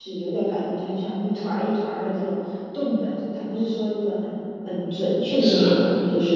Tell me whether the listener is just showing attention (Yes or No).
Yes